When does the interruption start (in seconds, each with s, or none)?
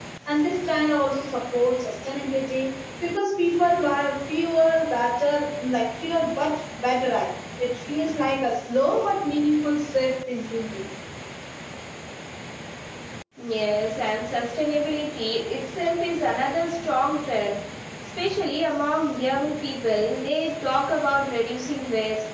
none